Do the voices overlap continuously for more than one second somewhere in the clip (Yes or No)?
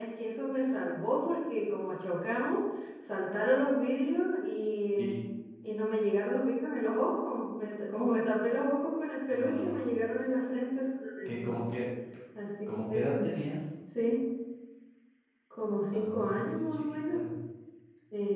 Yes